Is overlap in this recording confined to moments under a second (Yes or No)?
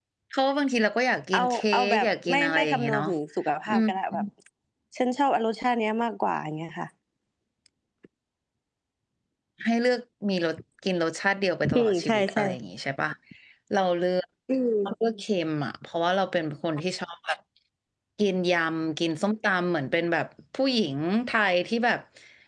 No